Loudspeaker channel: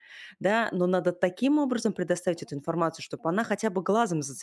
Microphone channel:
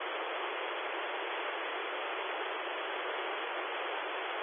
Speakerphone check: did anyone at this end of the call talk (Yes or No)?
No